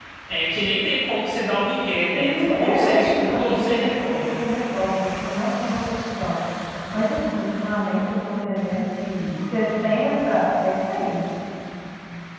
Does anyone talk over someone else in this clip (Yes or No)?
Yes